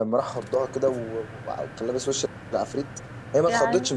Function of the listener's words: listening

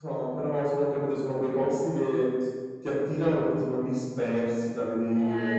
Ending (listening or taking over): taking over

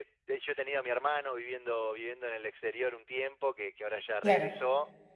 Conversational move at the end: listening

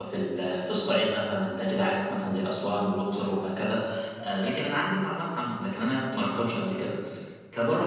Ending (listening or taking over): listening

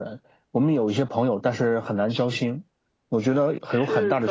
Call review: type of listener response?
taking over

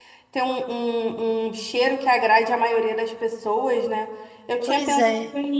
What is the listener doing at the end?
listening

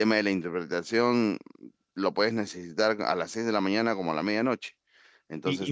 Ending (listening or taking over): taking over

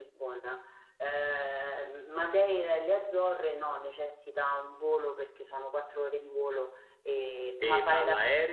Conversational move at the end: taking over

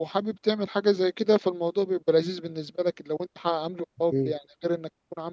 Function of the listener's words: listening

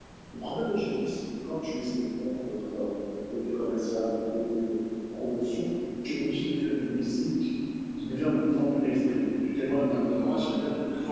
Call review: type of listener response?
taking over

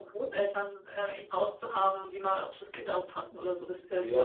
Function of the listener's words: taking over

